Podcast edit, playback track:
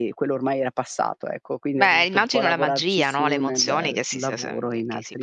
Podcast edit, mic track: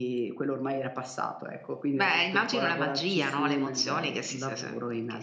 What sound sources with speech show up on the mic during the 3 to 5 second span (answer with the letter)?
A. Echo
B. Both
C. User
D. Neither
A